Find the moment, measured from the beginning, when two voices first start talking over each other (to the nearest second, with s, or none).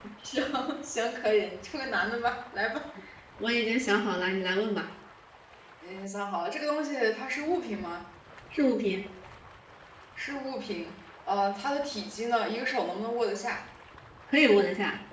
none